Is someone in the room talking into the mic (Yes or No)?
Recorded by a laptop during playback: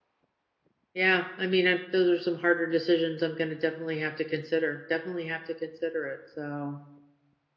Yes